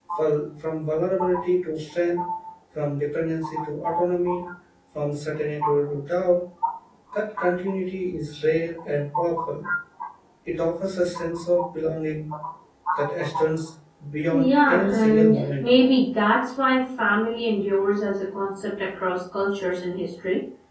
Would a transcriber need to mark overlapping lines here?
Yes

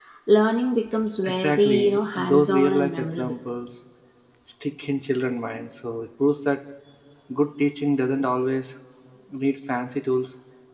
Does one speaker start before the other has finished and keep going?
Yes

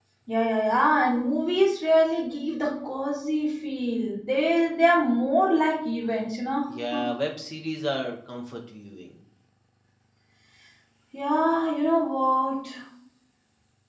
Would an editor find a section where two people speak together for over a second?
No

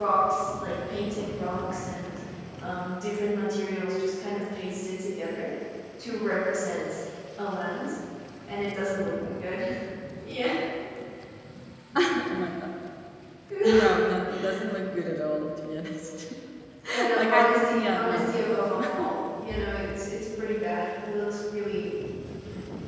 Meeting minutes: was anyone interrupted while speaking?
Yes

